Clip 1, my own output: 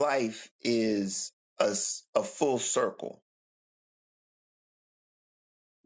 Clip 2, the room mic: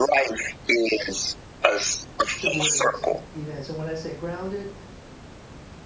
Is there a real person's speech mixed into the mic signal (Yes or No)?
Yes